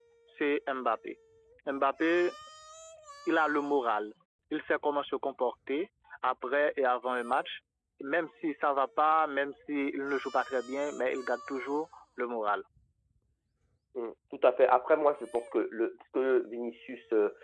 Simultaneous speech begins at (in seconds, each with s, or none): none